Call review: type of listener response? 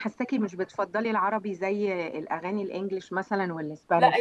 taking over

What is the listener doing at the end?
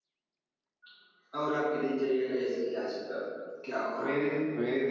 taking over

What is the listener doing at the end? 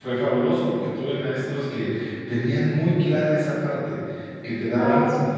listening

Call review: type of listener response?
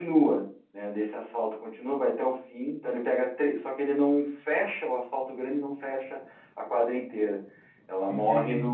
listening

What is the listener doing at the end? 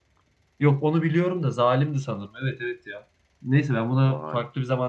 listening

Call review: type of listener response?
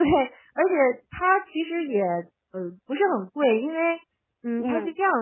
listening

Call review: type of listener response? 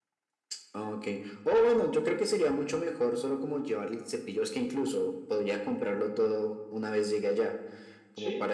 taking over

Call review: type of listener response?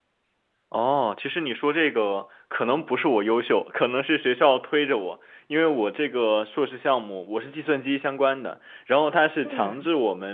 listening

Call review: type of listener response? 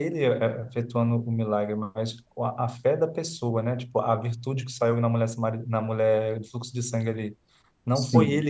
listening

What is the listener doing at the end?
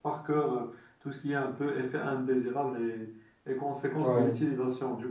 listening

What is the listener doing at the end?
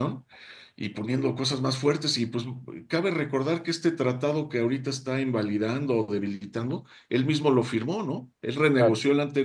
listening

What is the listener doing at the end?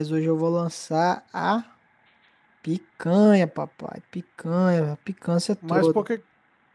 taking over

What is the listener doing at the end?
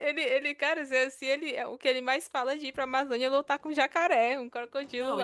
taking over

